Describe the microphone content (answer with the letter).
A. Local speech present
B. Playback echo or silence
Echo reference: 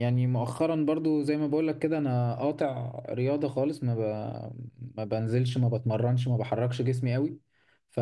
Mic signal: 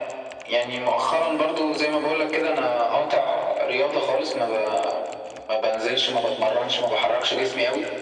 B